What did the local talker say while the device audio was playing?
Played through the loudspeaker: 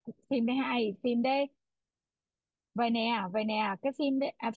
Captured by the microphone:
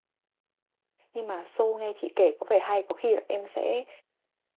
nhưng mà show nghe chị kể có vẻ hay có khi là em sẽ

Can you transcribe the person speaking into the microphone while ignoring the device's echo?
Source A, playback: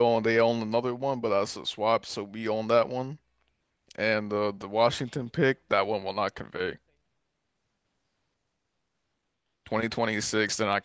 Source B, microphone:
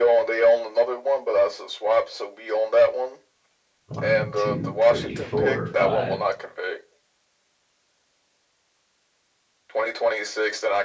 One, two, three, four, five,

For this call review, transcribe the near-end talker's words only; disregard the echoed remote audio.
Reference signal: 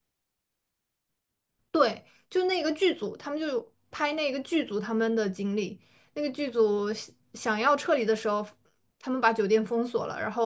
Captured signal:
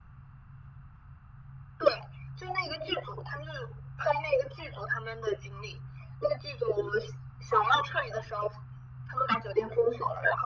none

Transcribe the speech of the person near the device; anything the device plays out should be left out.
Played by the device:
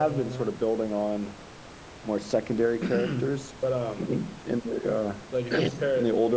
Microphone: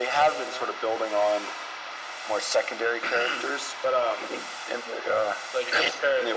none

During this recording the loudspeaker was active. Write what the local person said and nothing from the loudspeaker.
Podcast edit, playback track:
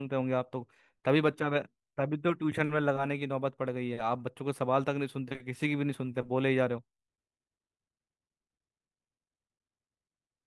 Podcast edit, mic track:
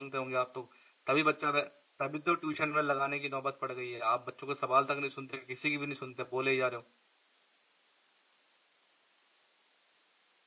none

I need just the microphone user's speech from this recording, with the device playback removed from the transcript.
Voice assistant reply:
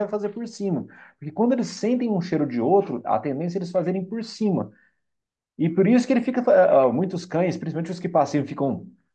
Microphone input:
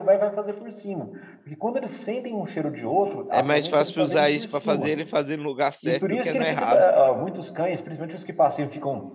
É mais fácil usar isso para fazer ele fazer no lugar certo do que no errado.

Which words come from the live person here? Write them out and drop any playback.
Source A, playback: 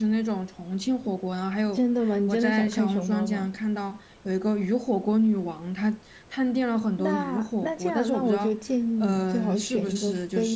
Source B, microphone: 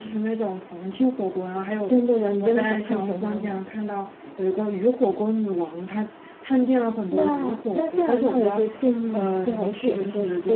none

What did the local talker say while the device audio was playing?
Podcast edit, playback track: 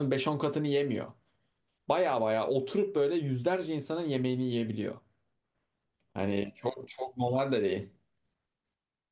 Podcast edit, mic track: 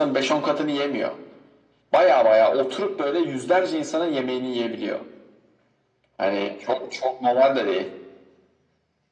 none

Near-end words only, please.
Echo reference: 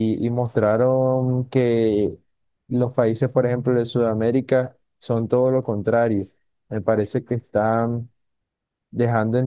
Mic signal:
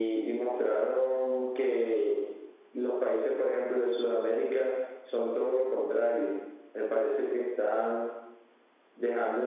none

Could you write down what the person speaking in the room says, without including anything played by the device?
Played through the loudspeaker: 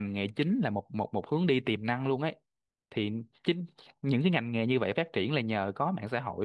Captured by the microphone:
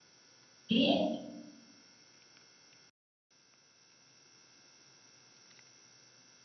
ý em

